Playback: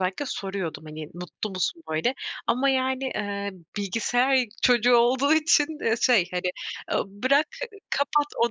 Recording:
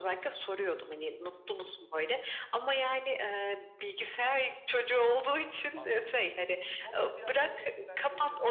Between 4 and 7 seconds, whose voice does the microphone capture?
both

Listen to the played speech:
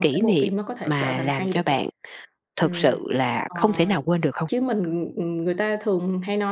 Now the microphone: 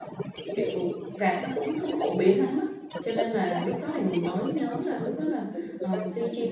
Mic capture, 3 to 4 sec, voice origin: both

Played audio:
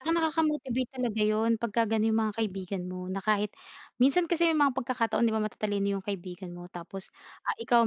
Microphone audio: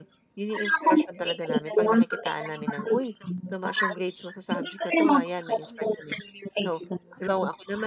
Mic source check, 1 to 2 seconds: both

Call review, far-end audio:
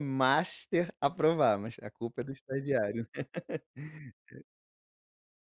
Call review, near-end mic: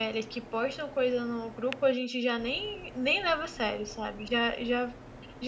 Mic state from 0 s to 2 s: user only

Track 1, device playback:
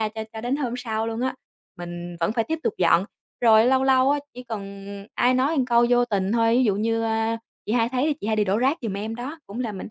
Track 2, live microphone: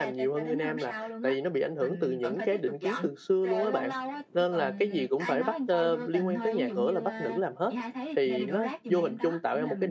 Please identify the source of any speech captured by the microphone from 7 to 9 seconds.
both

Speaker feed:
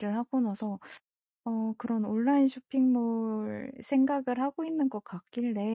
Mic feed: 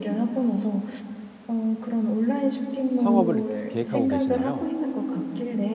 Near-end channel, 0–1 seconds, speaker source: echo only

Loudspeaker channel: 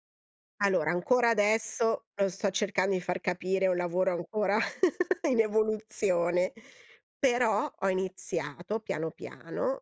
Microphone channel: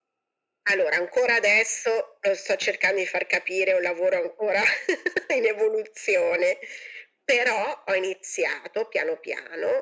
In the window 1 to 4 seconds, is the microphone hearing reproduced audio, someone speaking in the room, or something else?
echo only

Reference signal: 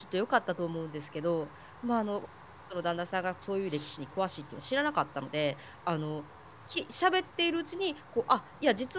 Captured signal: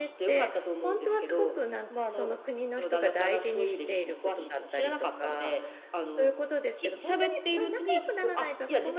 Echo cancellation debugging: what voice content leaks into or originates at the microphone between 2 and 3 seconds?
both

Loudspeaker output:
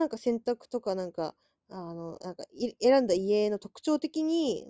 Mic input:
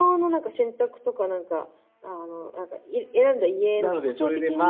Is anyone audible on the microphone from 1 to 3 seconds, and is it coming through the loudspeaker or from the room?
echo only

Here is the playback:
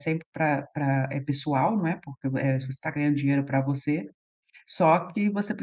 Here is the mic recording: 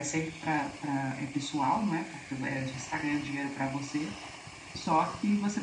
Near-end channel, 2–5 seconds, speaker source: echo only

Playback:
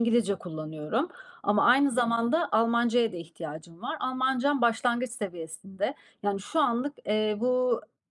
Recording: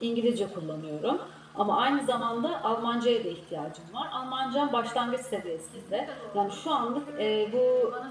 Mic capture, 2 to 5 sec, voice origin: echo only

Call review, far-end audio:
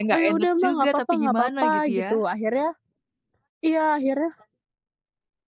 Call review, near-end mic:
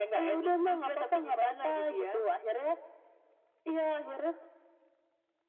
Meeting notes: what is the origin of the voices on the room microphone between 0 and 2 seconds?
echo only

